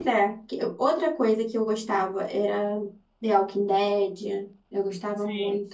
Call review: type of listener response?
listening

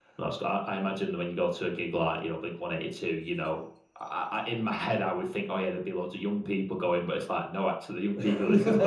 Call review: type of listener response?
listening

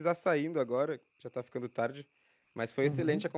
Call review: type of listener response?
listening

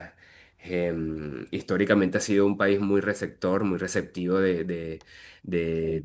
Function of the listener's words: listening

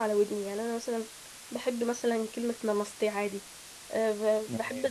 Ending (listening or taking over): listening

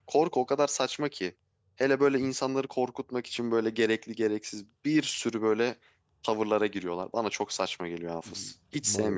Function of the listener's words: taking over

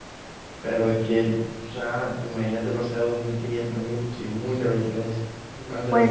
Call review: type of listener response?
taking over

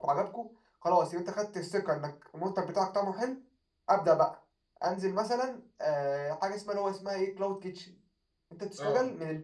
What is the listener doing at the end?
listening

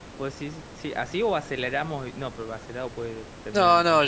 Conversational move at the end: taking over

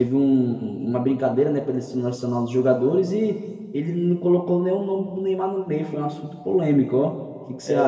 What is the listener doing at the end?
taking over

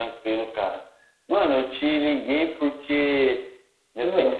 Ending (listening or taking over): listening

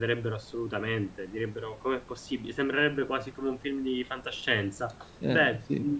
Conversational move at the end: listening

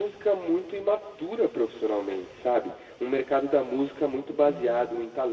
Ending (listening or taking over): listening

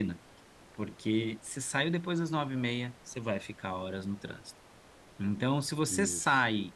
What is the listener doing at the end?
listening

